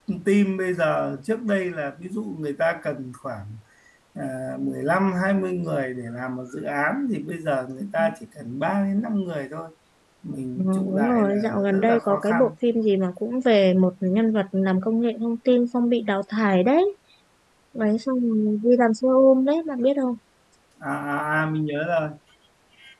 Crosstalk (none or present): present